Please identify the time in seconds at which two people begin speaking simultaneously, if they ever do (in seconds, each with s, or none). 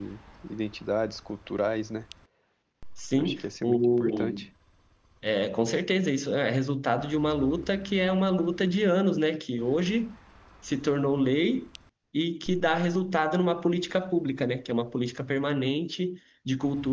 3.2 s